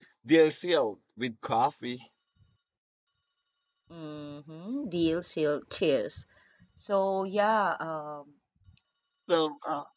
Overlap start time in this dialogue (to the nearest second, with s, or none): none